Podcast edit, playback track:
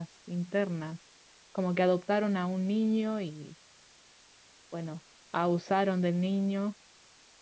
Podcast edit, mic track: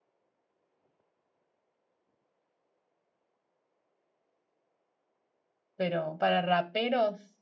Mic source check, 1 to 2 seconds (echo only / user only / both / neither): neither